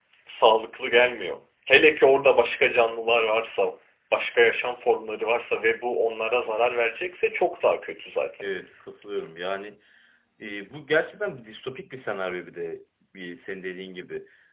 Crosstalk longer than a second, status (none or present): none